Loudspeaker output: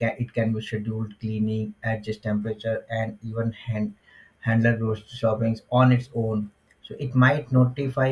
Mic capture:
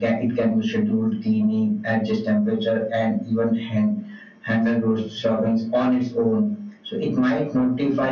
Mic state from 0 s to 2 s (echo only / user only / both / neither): echo only